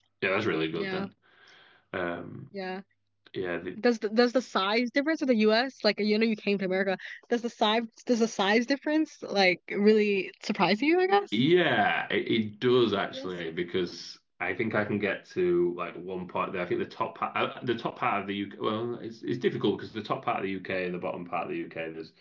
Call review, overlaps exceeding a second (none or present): none